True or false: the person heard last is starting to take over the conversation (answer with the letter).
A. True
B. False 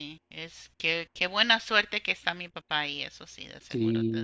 A